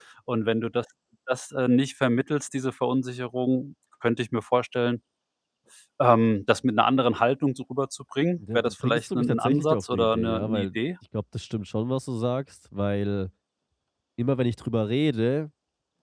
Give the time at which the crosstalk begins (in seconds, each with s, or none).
8.4 s